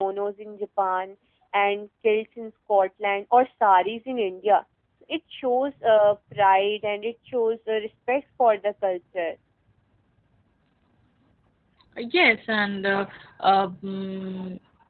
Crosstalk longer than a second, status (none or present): none